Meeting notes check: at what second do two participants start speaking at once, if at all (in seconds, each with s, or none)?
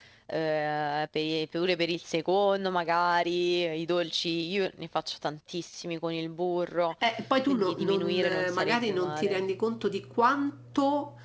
7.5 s